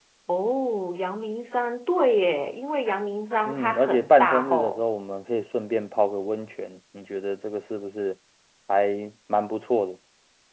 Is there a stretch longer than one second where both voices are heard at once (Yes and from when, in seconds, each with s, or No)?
Yes, from 3.5 s